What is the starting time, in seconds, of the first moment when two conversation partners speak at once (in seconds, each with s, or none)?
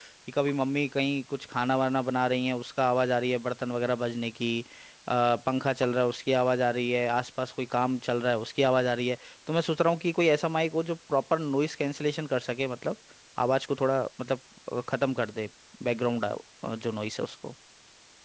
none